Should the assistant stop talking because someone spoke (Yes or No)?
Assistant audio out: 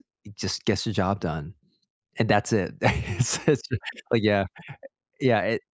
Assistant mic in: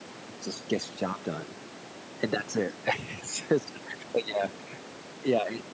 No